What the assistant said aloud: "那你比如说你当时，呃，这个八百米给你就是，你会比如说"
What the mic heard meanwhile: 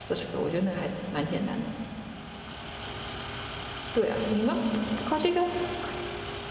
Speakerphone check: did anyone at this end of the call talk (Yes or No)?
Yes